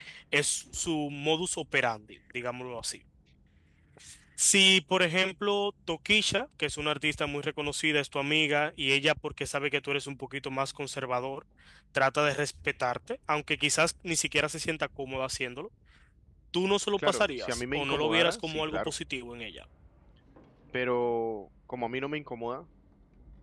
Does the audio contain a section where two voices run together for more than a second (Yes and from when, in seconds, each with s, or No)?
Yes, from 17.0 s